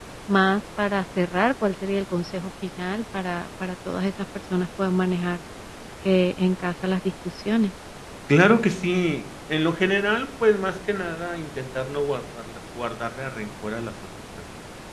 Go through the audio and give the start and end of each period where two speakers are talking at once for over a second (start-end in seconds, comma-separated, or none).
none